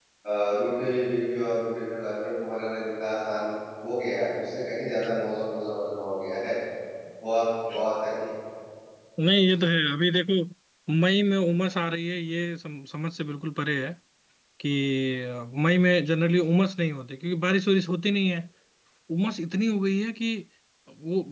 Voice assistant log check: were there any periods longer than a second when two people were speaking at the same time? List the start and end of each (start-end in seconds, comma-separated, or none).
none